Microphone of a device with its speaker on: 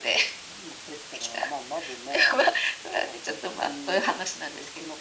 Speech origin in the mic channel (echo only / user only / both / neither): echo only